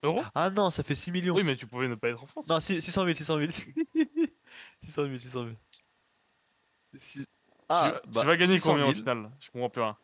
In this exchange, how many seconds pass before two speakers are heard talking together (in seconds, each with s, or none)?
7.7 s